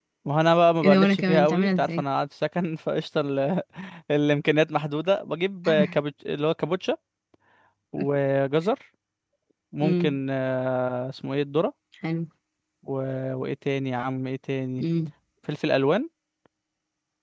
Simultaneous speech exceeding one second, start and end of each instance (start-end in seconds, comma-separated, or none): 0.8-2.0